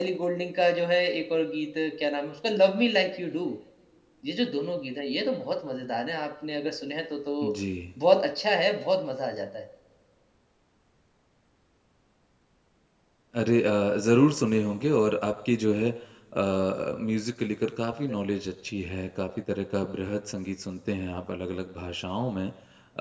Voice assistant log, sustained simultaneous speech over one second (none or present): none